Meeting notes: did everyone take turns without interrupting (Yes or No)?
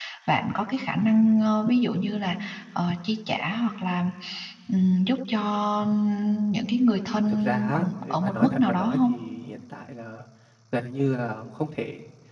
No